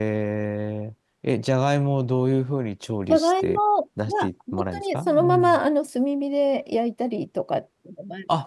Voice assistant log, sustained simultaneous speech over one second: present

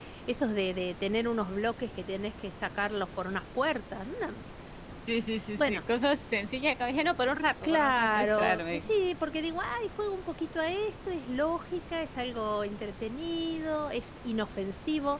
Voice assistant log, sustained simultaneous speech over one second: present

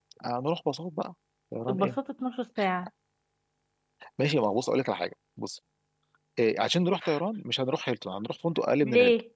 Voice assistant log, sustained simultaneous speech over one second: none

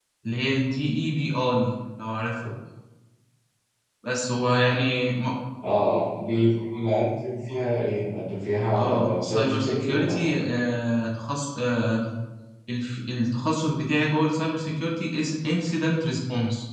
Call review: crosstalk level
present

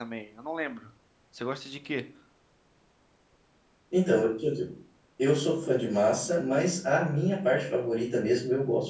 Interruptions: none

